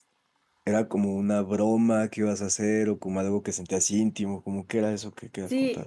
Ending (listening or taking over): taking over